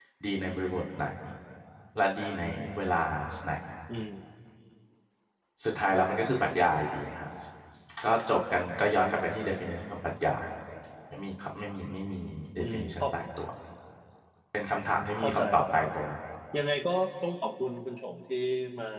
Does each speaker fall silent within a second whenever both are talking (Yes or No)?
Yes